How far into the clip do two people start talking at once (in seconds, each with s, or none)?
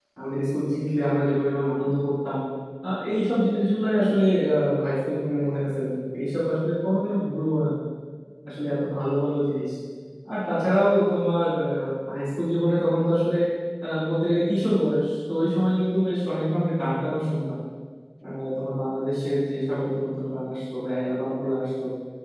none